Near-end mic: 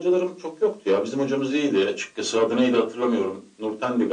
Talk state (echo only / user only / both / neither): echo only